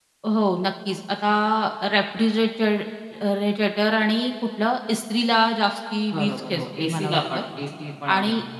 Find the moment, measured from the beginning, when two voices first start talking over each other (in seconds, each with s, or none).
6.1 s